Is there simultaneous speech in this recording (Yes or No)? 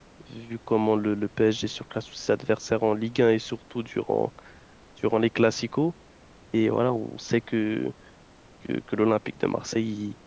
No